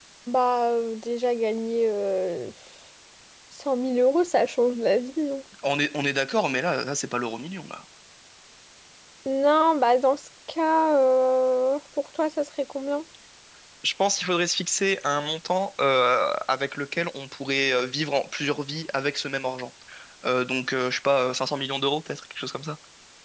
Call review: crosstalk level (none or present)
none